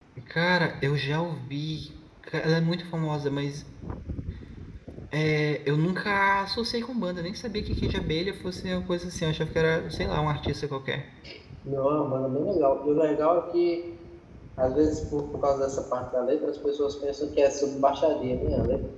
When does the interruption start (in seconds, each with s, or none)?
none